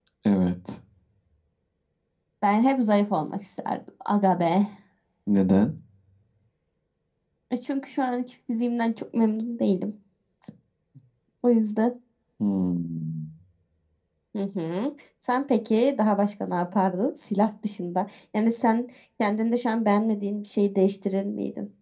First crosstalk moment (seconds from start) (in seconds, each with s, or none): none